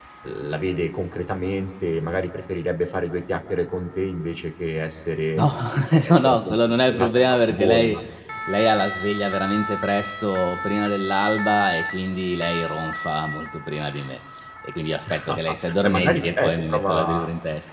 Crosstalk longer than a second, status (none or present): present